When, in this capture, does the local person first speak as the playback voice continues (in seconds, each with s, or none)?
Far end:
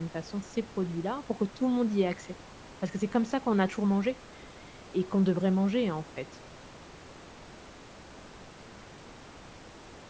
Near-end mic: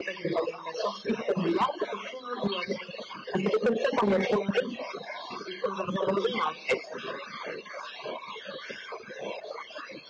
none